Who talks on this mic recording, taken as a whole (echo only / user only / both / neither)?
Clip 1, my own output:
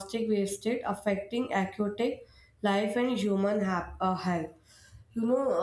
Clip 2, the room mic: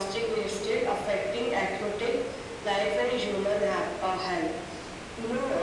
echo only